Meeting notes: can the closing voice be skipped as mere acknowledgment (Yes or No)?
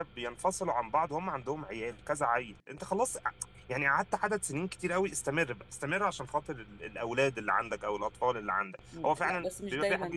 No